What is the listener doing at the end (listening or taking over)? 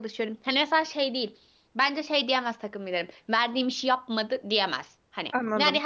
listening